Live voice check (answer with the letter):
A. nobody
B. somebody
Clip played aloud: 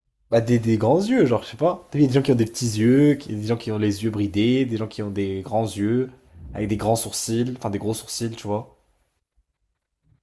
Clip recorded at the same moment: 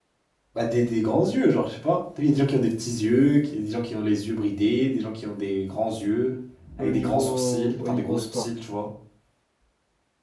B